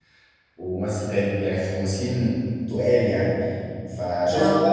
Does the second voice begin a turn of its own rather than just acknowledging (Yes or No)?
No